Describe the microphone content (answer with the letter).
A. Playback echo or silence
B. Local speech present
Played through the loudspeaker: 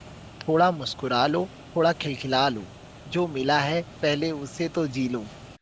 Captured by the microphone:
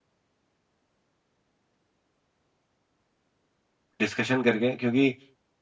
B